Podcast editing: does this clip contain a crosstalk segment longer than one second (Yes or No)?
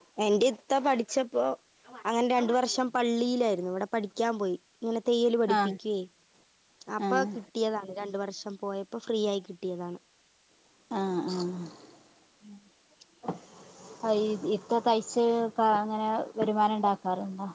No